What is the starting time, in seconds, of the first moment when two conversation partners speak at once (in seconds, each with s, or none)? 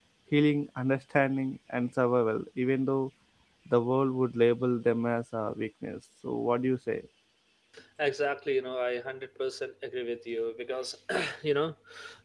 none